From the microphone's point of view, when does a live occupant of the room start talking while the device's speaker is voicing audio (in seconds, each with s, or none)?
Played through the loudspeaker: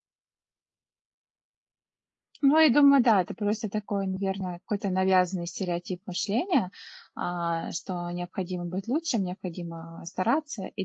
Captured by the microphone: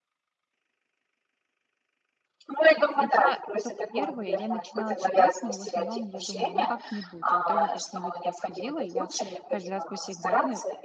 3.0 s